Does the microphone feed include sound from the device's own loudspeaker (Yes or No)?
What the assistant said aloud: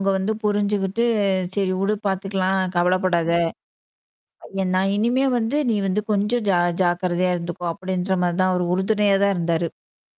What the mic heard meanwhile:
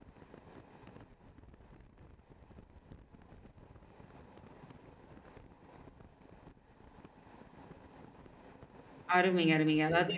No